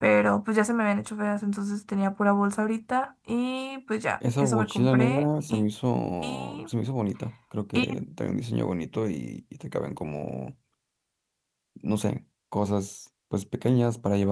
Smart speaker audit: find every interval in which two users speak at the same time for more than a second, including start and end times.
4.4-5.6

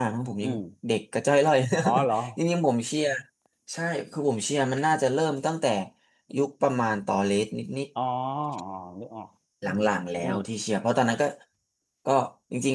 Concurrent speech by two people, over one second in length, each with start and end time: none

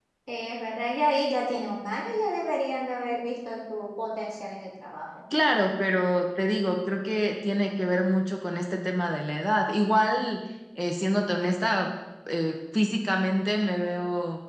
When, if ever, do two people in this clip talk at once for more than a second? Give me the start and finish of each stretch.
none

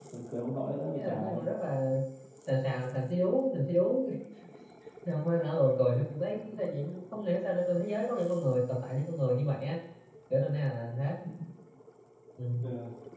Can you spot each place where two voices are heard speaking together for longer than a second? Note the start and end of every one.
none

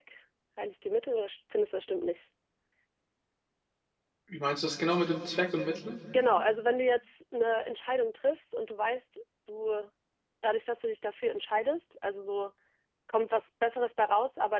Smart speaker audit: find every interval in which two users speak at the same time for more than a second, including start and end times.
none

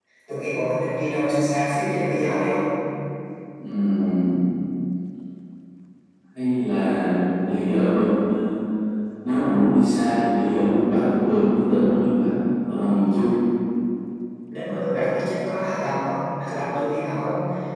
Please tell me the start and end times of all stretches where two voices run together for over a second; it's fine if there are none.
none

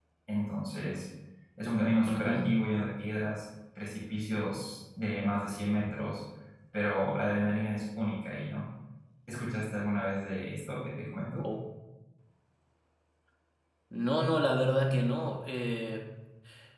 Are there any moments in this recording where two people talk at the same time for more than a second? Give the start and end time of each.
none

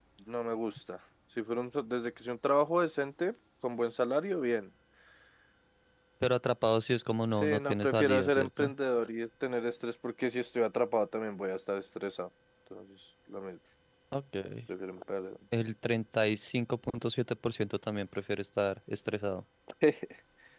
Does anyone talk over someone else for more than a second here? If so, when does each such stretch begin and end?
7.3-8.7

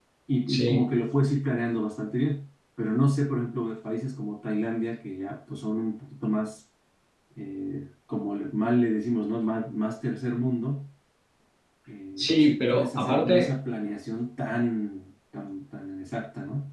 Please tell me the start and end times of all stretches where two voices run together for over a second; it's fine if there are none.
12.2-13.5

